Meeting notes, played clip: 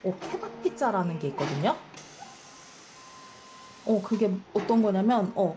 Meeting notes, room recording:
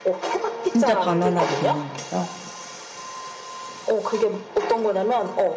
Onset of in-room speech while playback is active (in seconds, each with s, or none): 0.6 s